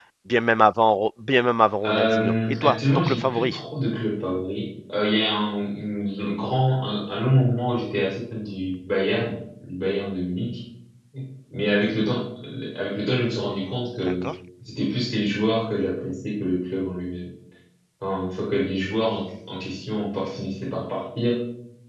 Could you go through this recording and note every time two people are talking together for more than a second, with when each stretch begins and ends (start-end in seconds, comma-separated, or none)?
1.9-3.5